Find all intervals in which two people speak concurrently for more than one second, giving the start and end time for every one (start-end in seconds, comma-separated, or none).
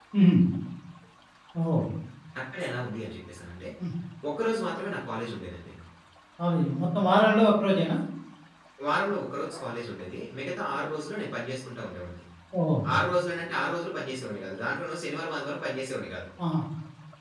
none